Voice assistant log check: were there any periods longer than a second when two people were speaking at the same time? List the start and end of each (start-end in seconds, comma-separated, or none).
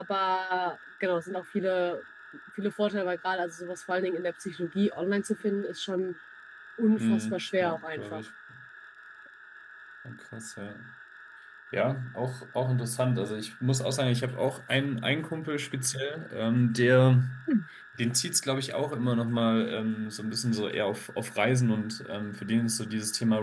7.0-8.2